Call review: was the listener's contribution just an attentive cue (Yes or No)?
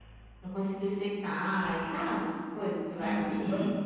No